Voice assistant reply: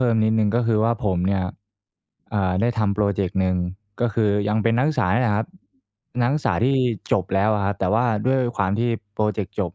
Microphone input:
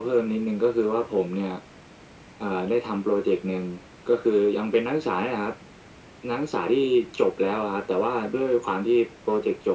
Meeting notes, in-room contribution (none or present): none